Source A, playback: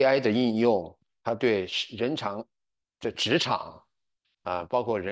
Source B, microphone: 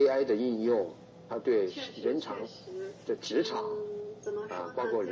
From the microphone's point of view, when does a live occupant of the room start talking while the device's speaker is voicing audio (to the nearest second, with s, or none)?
2 s